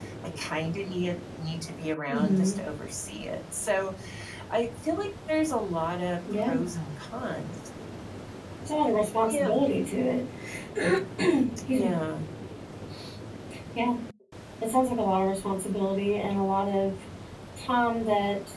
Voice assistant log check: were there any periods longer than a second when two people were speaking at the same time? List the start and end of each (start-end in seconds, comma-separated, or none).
none